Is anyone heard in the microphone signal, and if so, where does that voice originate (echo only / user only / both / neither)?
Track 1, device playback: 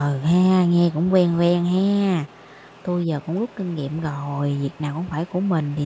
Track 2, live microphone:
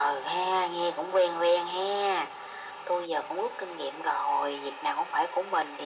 echo only